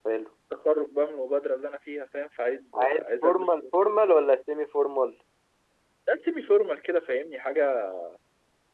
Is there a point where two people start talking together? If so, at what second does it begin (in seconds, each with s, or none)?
2.7 s